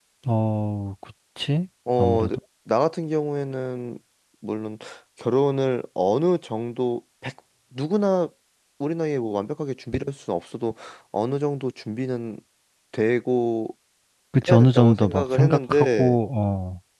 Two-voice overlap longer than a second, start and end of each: 14.5-16.2

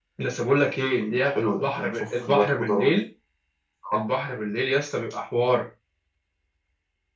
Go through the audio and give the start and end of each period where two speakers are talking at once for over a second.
1.0-2.9

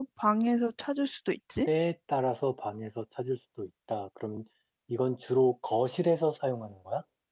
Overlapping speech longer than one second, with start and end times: none

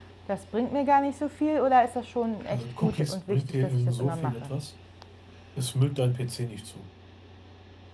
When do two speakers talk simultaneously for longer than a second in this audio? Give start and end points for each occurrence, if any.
2.5-4.5

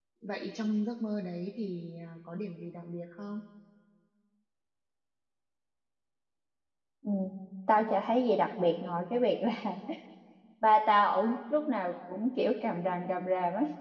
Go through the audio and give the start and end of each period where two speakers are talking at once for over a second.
none

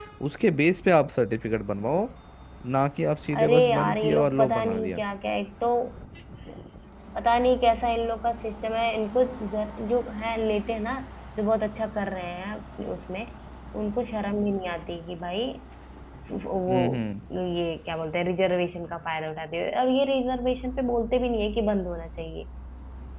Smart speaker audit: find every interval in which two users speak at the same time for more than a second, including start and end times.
3.4-5.0

